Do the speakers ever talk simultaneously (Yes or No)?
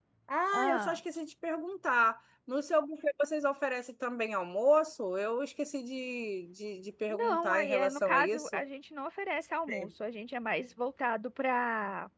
Yes